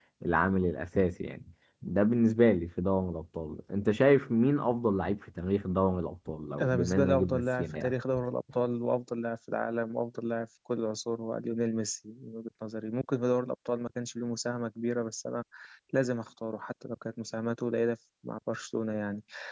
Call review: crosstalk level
present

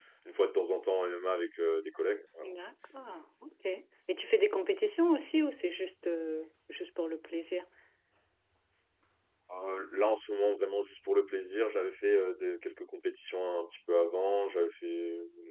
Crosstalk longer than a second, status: none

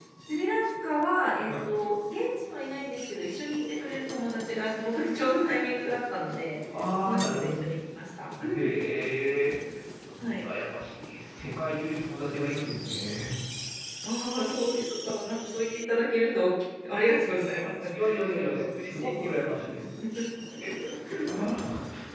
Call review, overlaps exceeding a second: present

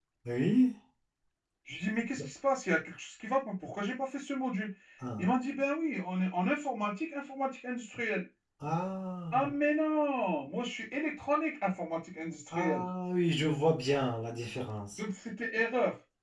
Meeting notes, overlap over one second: none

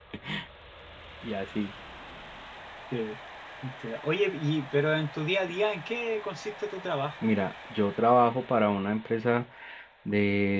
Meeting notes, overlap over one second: none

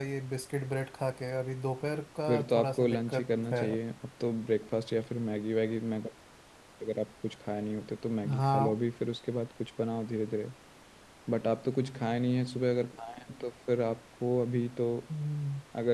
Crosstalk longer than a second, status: present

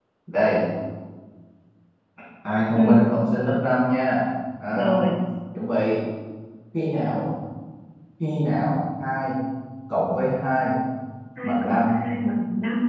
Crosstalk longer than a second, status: none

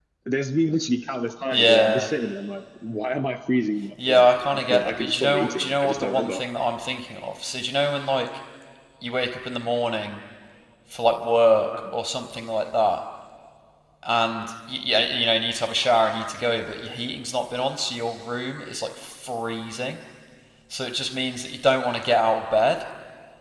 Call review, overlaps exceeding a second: present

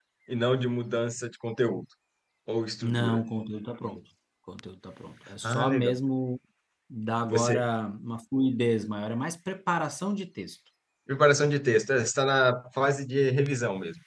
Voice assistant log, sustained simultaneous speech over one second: none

